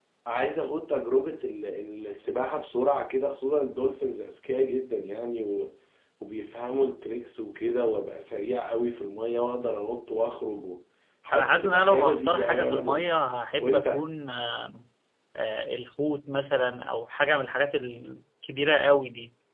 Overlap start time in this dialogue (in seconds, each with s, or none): 11.3 s